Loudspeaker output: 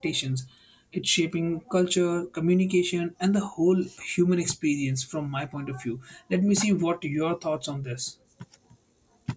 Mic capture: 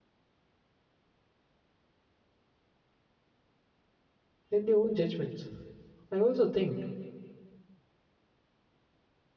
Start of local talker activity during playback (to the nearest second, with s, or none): 4 s